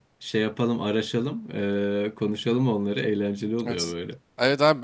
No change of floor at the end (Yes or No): No